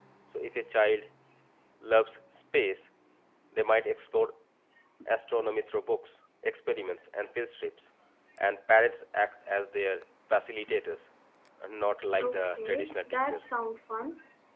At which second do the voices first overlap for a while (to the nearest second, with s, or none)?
12 s